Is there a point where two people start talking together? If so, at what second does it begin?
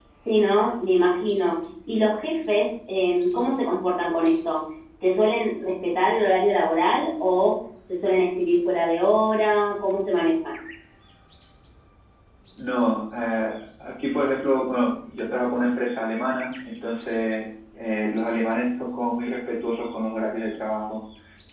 none

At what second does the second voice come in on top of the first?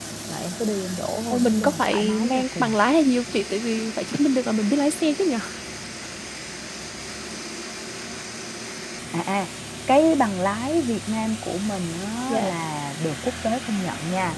1.3 s

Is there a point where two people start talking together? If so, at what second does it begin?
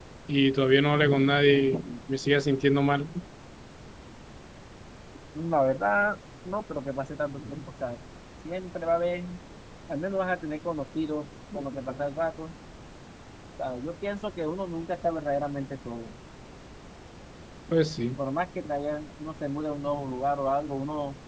none

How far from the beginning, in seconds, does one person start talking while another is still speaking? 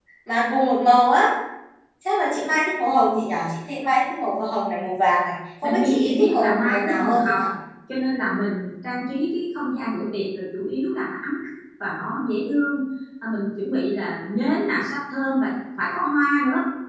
5.6 s

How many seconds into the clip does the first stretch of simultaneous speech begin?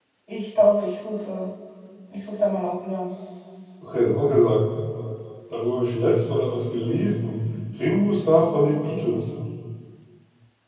none

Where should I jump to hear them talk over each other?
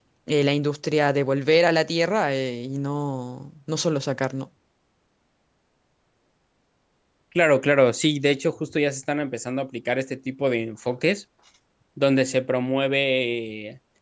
none

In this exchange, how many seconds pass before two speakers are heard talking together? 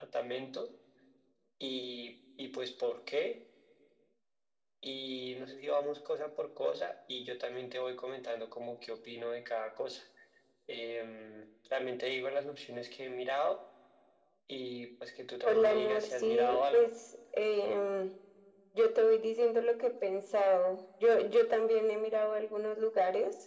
15.4 s

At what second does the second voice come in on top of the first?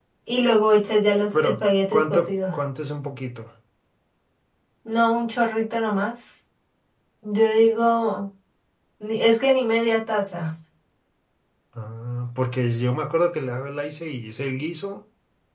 1.3 s

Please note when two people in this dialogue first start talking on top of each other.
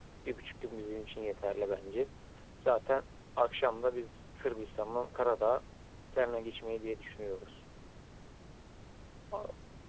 none

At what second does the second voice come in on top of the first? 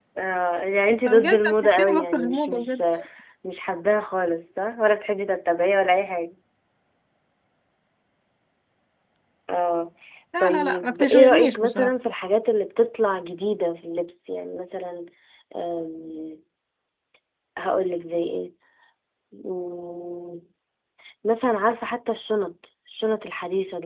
1.1 s

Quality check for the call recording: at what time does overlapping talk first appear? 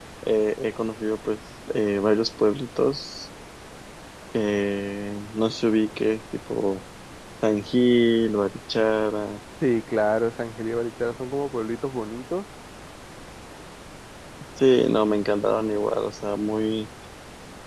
none

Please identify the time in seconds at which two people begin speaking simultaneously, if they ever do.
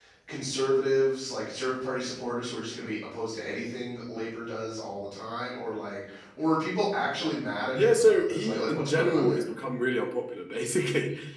7.8 s

